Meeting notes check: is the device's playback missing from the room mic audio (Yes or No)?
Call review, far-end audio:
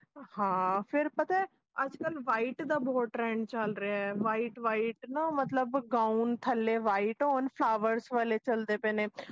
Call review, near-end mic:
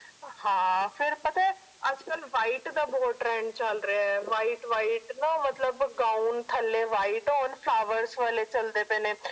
No